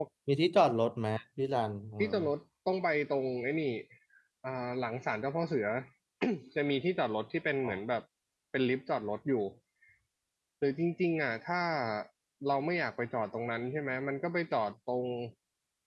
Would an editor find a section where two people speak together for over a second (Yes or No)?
No